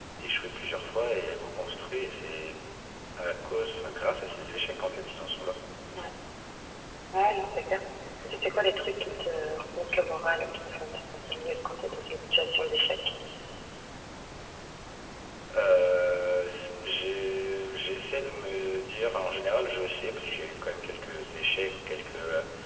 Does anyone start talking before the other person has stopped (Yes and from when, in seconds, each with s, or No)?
No